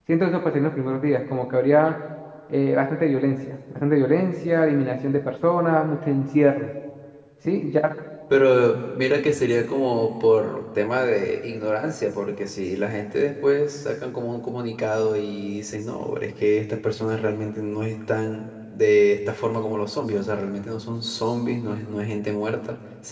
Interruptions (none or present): none